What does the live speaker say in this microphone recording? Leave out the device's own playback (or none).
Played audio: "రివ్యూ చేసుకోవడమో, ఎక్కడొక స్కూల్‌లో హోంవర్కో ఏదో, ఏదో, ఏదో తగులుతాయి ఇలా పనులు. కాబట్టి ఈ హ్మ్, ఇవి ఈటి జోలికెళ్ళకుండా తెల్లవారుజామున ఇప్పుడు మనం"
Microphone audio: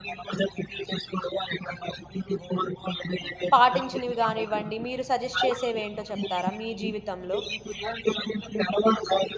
పాటించినవి గానివ్వండి, మీరు సజెస్ట్ చేసేవేంటో చెప్తారా మీ జీవితంలో?